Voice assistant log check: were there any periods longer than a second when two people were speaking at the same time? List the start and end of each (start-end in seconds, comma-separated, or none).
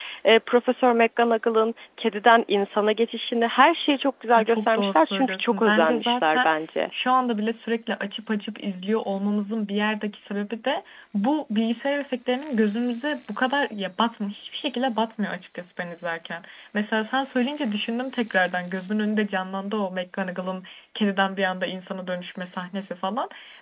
4.4-6.5